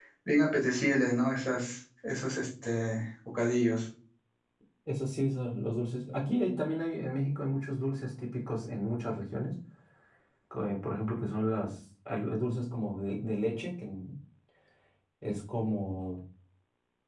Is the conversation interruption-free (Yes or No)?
Yes